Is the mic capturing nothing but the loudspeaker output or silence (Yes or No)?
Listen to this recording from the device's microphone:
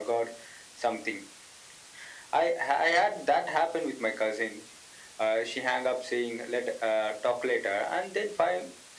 Yes